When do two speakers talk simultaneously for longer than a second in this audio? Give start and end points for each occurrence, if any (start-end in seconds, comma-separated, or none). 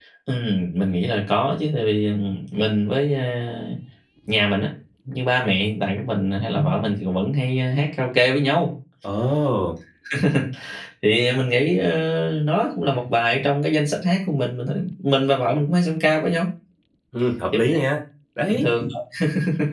none